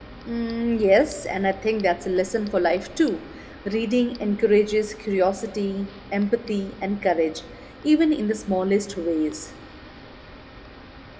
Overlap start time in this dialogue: none

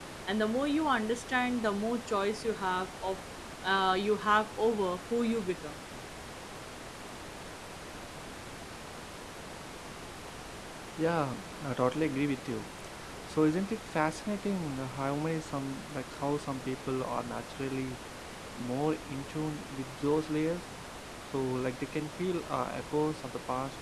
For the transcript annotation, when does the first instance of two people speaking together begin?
none

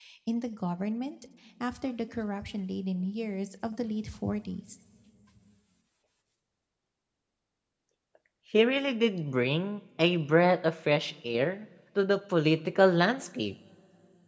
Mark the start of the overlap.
none

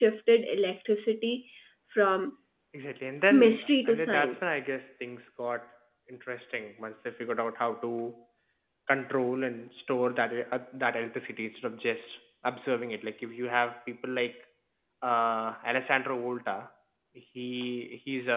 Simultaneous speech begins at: 3.3 s

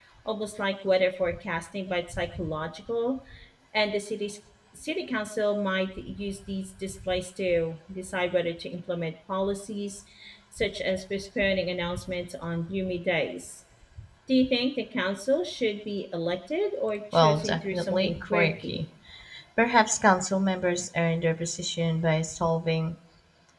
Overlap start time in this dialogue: 17.1 s

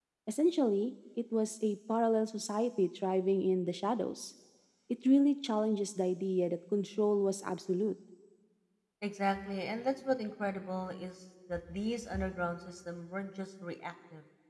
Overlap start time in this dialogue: none

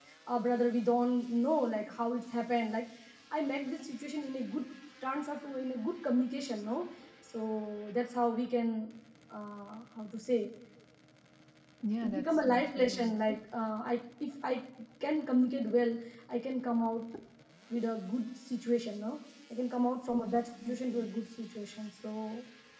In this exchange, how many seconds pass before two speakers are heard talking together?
12.0 s

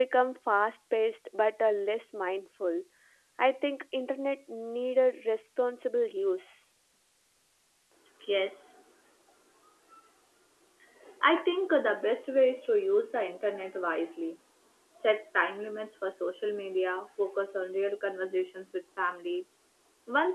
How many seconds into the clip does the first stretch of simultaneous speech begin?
none

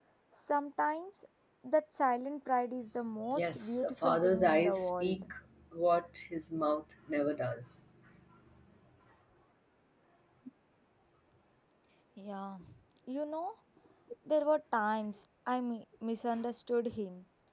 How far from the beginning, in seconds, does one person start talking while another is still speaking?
3.4 s

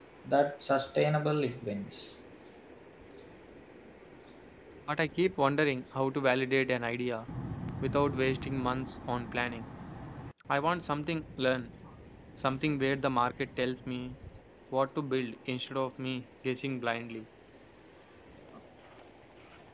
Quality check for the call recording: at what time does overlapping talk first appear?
none

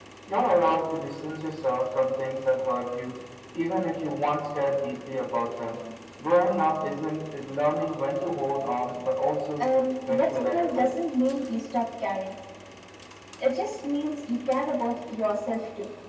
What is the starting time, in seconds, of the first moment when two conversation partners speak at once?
9.6 s

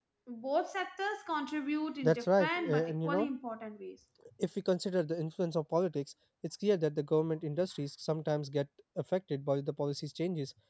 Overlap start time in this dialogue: 2.0 s

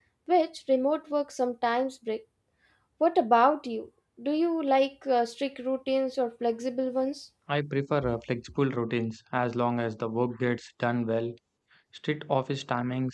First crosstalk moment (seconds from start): none

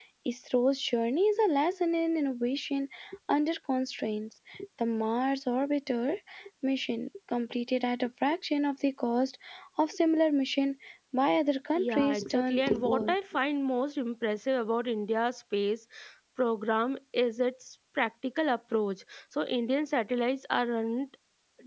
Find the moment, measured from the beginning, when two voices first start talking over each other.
11.8 s

